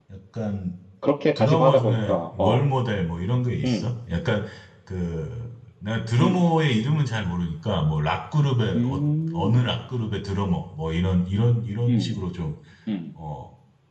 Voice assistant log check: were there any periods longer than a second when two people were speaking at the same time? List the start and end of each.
1.4-2.6

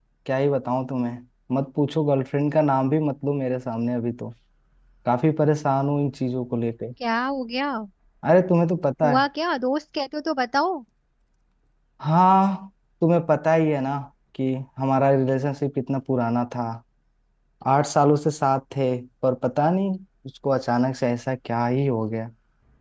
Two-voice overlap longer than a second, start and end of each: none

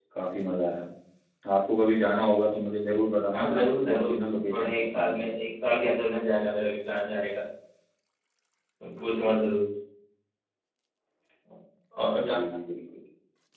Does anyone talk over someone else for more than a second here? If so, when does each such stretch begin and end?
3.3-5.2

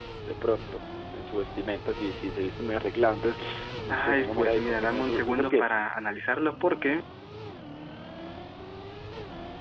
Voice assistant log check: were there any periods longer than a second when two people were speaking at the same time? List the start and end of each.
3.9-5.9

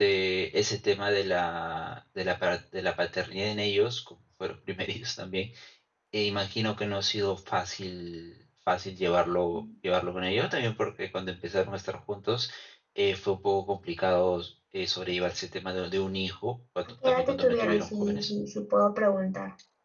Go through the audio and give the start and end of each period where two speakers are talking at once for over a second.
17.1-18.3

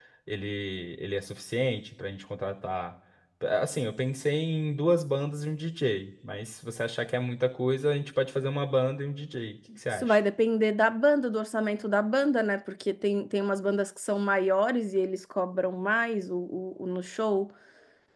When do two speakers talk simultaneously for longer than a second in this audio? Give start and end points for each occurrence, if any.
none

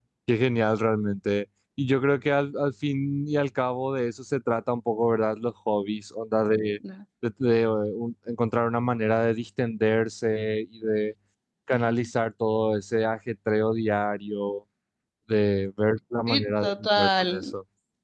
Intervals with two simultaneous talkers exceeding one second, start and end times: 16.3-17.5

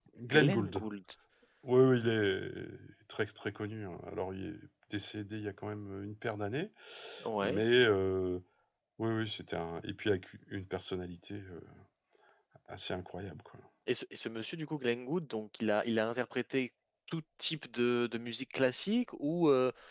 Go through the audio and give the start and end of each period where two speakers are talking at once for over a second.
none

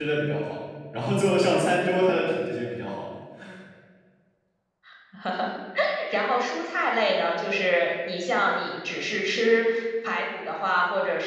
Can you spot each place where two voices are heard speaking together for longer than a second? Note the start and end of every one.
none

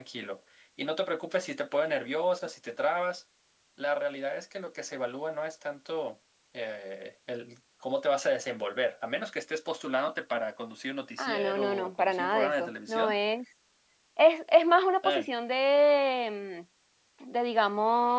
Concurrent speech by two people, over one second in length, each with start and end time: 11.2-13.2

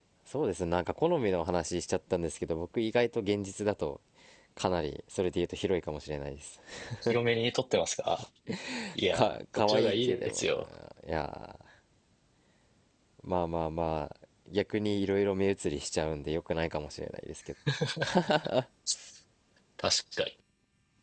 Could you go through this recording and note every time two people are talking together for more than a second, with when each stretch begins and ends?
9.1-10.5

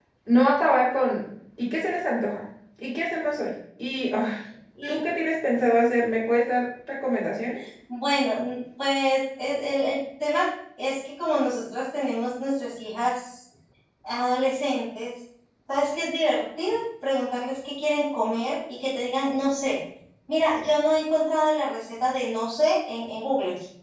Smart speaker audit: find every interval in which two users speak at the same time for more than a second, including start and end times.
none

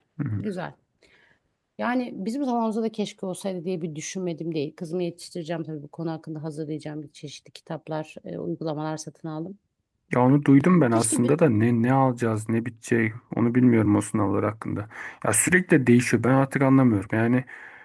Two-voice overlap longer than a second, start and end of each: none

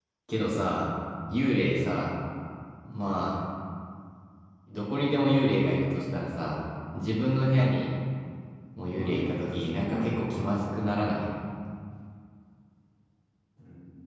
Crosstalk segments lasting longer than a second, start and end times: 8.8-10.2

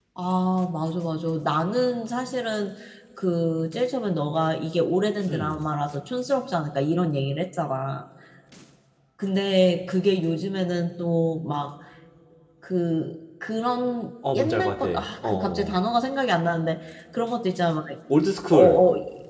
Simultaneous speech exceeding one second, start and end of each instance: 14.3-15.8

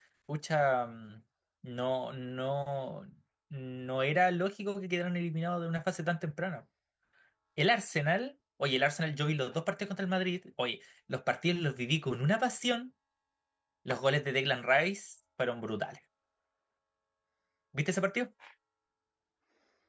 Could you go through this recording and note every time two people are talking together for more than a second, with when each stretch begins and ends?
none

